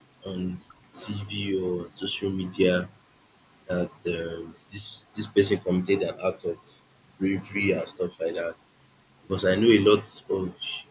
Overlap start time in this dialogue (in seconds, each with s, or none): none